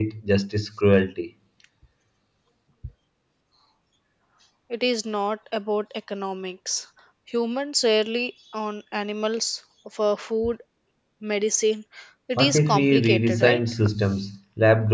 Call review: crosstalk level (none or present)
present